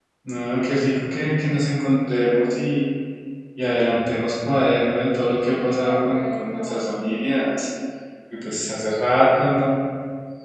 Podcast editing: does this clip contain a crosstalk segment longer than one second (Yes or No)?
Yes